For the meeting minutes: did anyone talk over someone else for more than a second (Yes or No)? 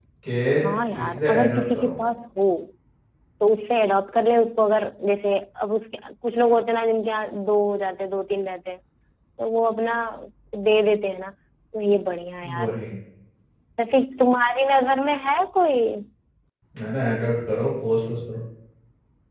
Yes